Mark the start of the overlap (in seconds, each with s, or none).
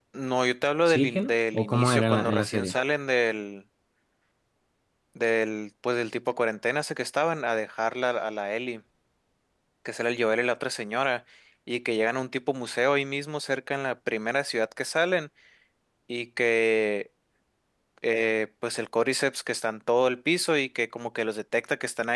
0.9 s